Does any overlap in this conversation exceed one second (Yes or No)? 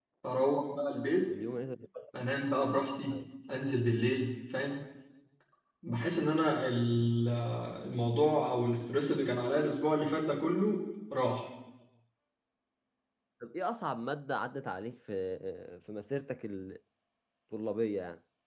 No